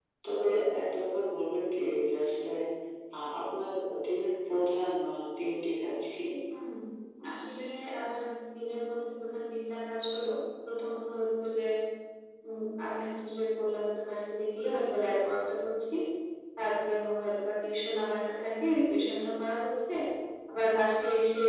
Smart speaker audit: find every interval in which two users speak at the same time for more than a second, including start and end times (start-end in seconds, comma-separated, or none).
none